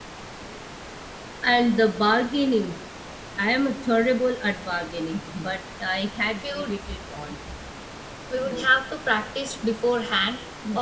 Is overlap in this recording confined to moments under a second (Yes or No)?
Yes